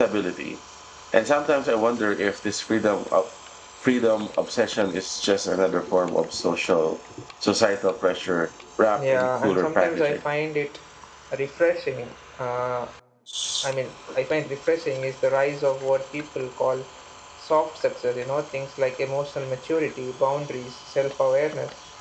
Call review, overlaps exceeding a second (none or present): present